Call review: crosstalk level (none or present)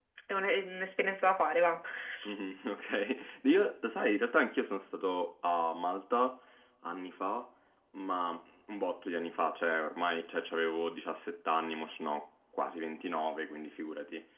none